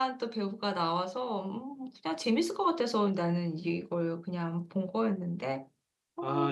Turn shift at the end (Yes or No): Yes